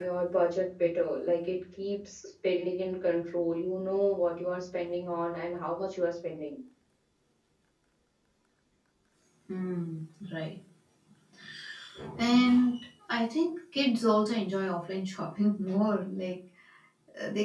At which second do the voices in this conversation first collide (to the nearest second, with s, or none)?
none